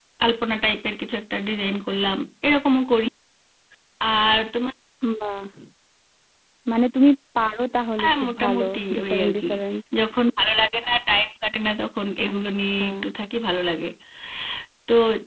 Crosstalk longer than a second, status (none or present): present